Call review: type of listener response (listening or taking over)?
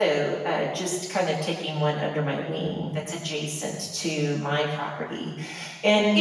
listening